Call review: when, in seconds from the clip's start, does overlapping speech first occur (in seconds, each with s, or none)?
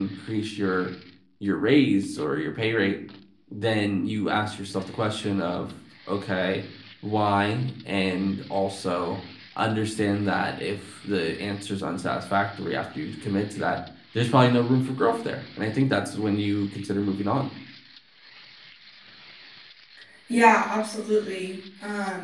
none